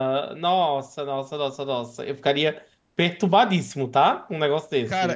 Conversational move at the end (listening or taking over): taking over